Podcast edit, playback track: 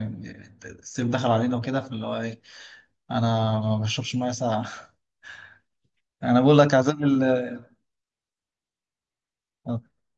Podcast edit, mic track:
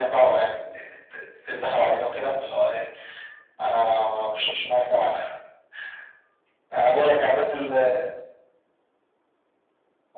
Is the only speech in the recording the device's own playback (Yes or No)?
Yes